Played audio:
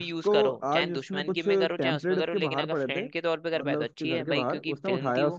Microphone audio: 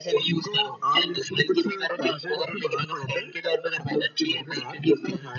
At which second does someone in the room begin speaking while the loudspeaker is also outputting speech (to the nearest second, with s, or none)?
none